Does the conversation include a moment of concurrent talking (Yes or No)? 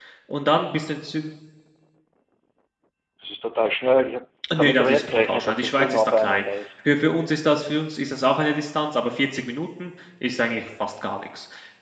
Yes